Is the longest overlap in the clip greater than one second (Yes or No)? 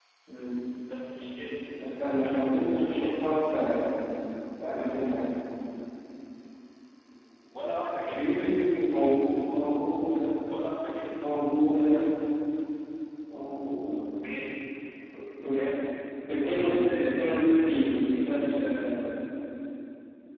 Yes